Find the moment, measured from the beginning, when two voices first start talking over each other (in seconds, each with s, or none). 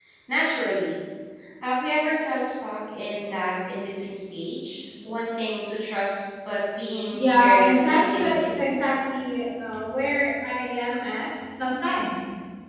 7.1 s